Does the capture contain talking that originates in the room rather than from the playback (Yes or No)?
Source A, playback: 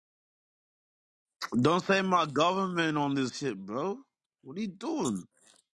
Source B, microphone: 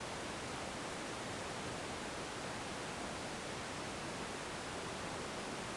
No